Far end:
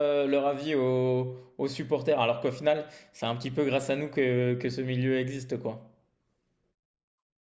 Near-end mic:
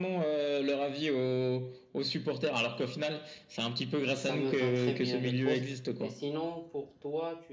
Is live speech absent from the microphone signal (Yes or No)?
No